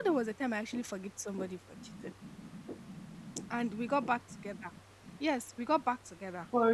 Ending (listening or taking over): listening